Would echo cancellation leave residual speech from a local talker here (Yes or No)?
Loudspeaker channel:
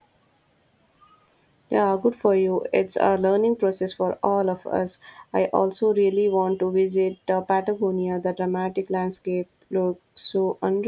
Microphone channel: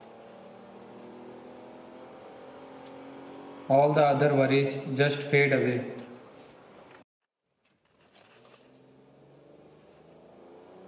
Yes